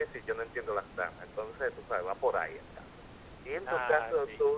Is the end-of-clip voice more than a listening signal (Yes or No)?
No